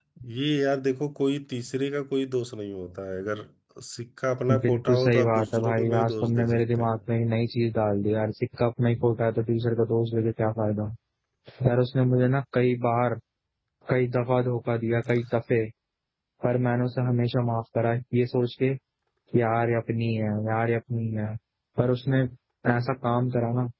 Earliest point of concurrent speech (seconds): 5 s

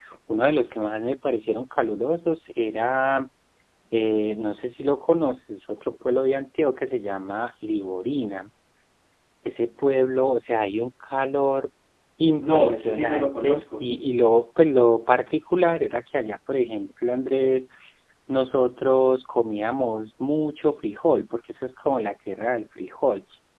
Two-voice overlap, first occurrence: 12 s

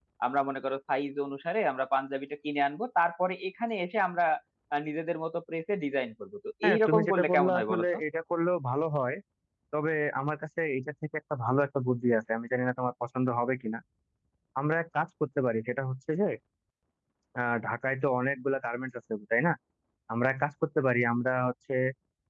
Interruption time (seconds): 7 s

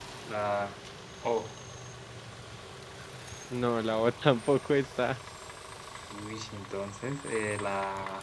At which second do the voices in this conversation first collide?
none

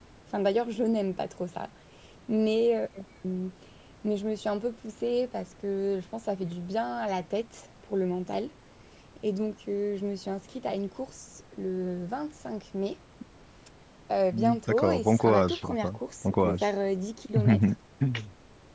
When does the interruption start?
14 s

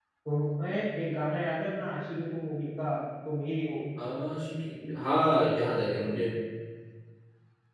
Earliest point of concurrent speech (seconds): none

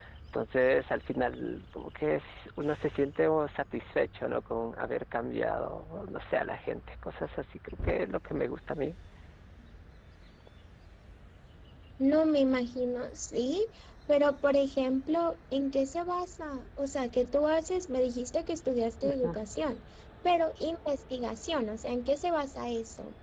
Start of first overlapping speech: none

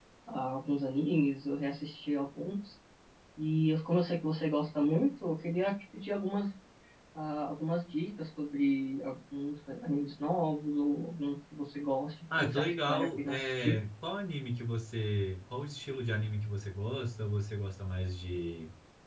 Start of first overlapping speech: 12 s

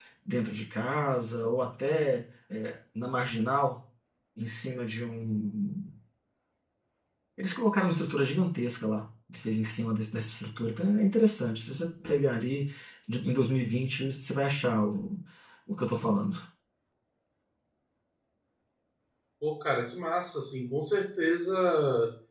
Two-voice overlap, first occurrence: none

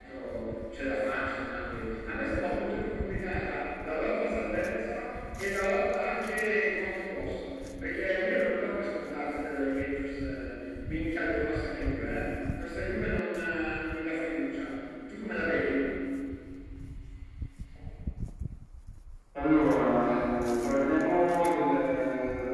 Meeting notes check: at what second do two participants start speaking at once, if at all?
none

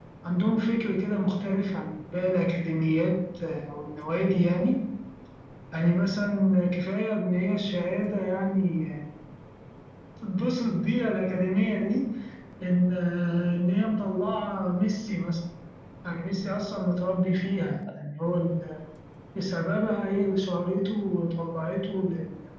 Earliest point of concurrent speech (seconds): none

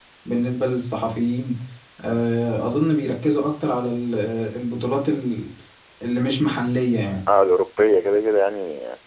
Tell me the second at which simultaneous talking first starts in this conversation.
none

